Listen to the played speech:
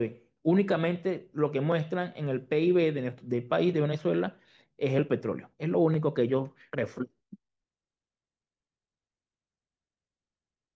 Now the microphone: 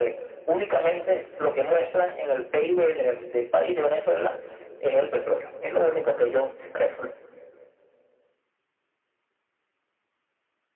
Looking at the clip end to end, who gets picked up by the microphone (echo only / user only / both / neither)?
echo only